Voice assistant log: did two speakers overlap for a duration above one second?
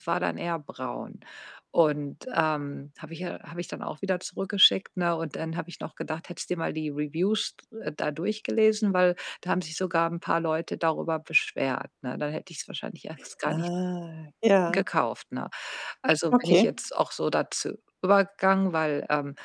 No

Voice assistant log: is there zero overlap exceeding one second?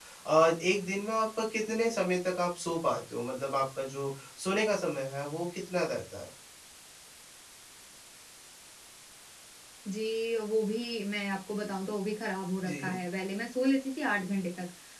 Yes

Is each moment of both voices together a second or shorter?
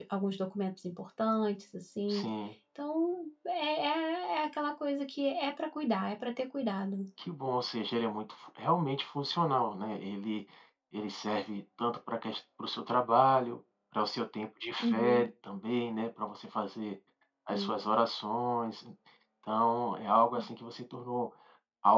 Yes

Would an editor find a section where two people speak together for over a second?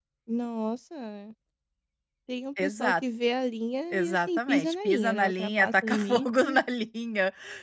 Yes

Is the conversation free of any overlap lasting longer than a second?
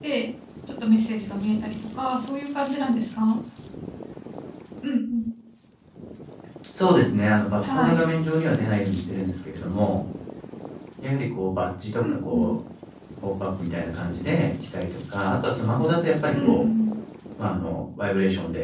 Yes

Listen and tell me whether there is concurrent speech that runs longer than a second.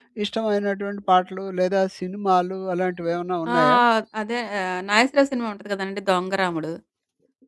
No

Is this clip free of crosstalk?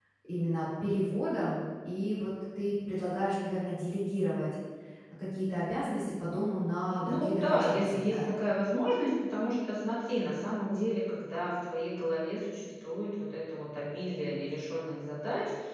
No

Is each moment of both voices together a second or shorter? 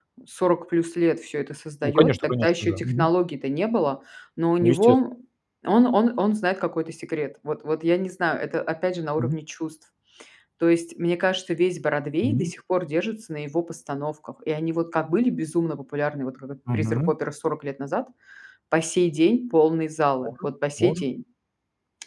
No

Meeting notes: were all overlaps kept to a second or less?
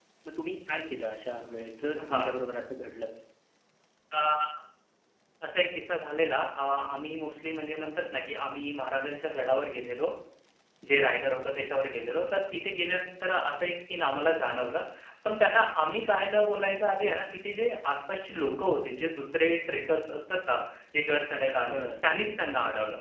Yes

